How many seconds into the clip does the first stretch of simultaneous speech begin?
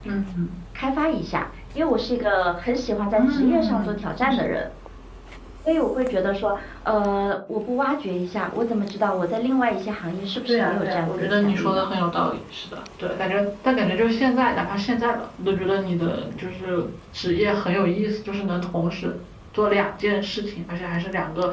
3 s

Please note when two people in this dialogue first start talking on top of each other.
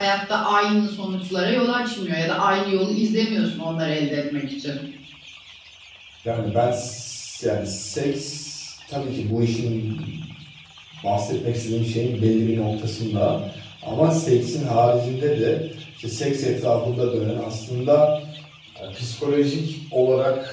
none

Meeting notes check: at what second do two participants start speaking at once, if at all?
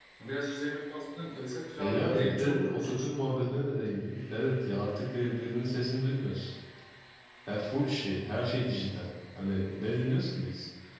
2 s

